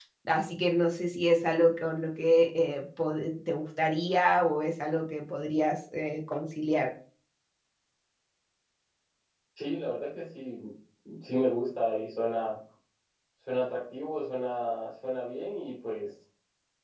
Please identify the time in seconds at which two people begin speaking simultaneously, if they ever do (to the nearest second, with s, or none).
none